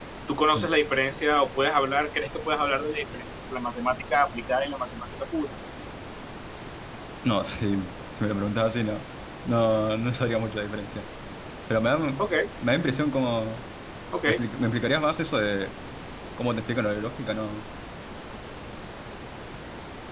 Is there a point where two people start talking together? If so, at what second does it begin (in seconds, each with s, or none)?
none